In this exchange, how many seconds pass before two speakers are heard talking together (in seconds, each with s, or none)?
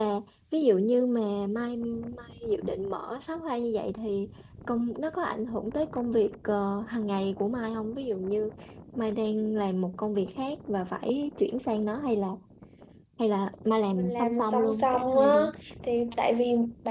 14.0 s